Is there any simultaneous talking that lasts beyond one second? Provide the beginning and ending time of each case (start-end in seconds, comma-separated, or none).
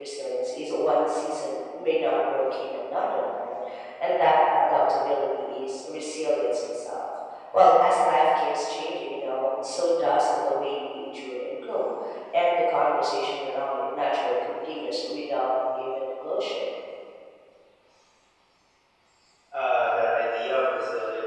none